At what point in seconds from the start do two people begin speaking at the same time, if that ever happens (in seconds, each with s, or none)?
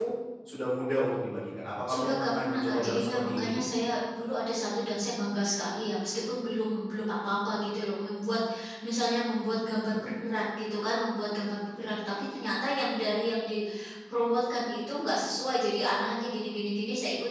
1.9 s